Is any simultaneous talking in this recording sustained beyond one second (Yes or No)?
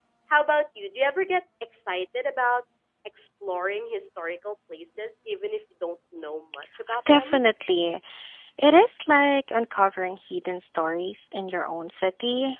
No